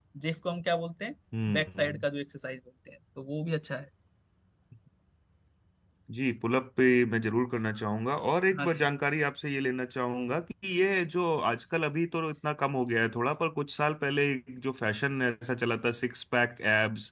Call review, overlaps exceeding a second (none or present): none